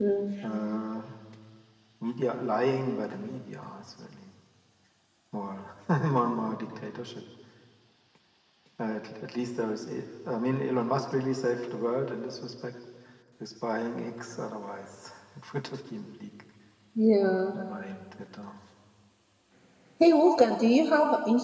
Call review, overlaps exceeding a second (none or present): none